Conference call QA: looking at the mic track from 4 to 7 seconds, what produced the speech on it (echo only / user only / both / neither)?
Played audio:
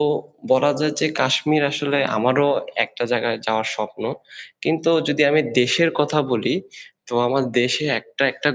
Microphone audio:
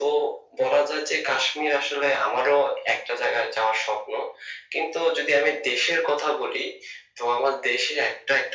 echo only